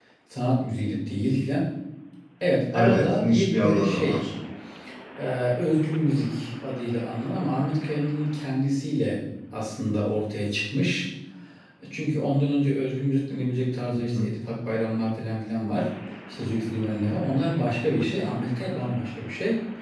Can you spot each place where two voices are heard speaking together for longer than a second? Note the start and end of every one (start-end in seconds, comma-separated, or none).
2.7-4.3